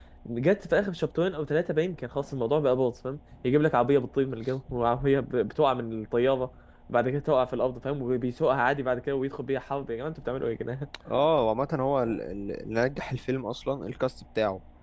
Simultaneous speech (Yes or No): No